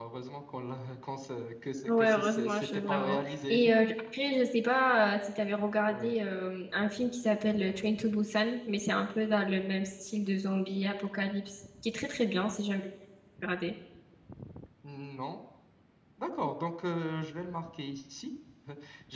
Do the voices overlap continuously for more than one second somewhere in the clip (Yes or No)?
Yes